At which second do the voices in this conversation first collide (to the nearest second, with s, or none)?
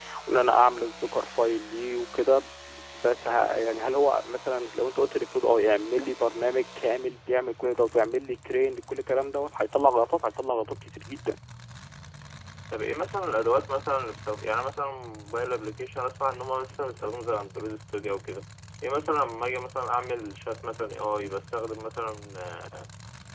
none